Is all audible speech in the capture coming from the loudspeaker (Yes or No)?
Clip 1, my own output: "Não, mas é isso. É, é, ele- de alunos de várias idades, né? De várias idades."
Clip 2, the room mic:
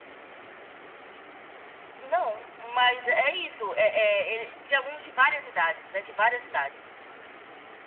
Yes